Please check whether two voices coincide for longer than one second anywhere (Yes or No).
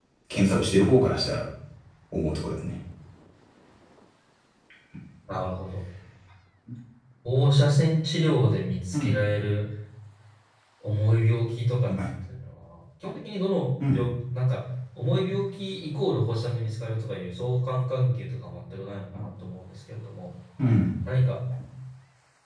No